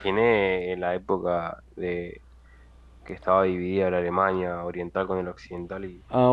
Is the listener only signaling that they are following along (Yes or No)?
No